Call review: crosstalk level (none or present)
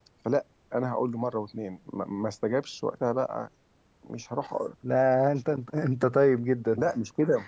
none